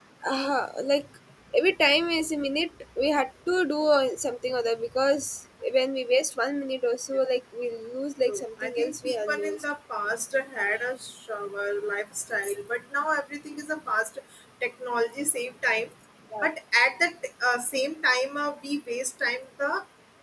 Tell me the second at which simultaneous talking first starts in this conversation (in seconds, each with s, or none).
8.3 s